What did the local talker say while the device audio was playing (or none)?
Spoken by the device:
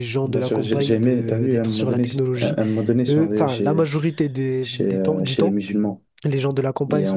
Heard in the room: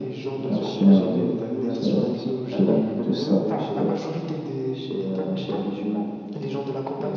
Un chien, euh, c'est c'est plutôt, plutôt sale. plutôt-